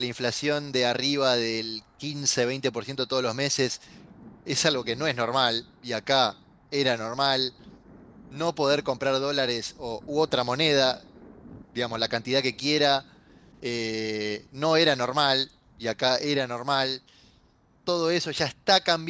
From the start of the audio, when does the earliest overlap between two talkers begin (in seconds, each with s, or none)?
none